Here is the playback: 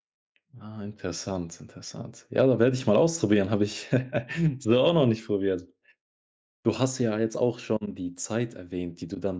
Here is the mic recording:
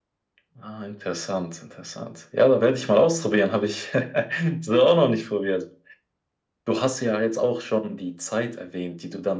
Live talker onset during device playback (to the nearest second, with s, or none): none